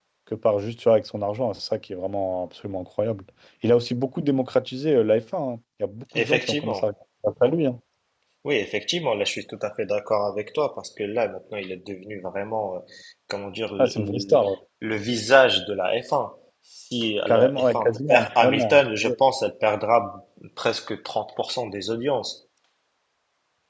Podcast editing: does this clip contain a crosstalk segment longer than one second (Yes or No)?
Yes